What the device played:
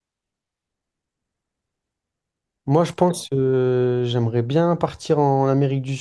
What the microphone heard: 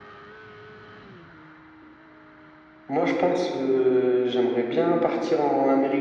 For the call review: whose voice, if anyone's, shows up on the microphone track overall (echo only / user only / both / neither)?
echo only